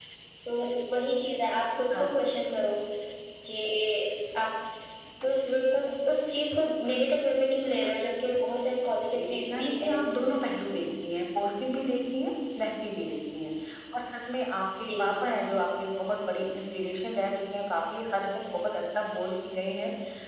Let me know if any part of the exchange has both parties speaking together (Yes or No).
Yes